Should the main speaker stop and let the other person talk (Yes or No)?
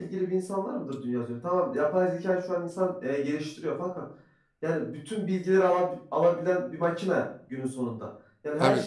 No